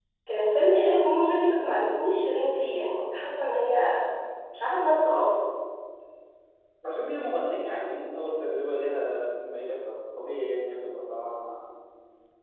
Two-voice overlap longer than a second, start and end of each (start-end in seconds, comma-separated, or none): none